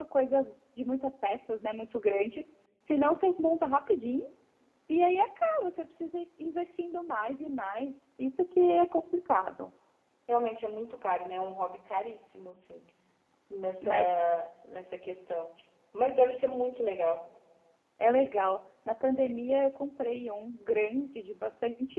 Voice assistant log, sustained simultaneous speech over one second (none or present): none